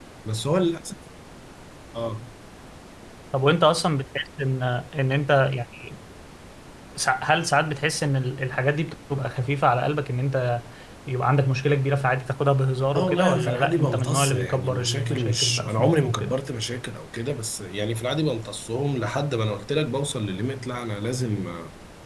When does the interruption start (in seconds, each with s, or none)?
12.9 s